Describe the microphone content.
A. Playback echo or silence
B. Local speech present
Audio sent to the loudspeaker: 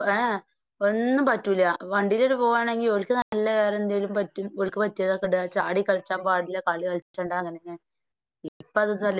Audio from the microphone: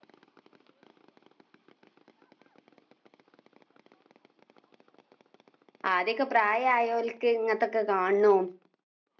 B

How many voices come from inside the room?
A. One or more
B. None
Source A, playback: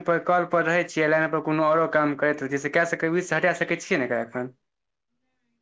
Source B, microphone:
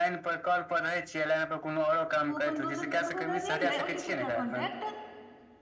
A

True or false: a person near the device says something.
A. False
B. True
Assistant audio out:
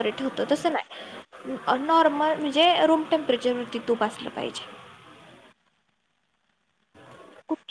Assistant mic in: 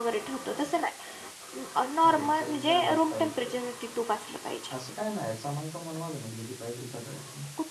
B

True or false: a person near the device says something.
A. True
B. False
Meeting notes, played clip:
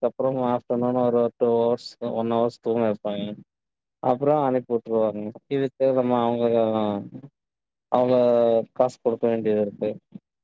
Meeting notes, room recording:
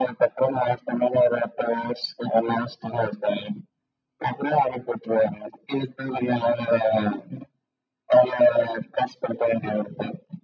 B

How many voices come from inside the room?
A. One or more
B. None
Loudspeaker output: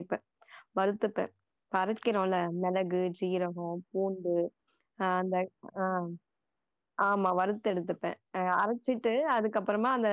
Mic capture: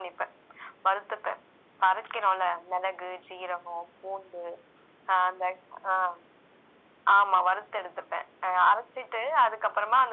B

